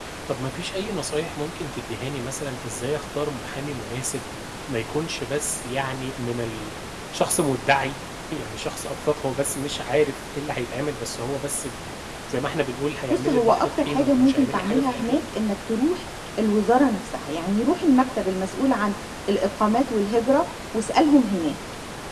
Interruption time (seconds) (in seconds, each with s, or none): 13.1 s